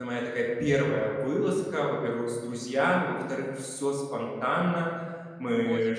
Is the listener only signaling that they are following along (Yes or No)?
Yes